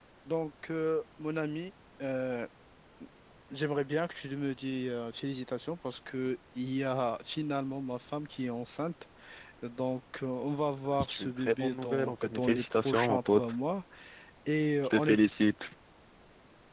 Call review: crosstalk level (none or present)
present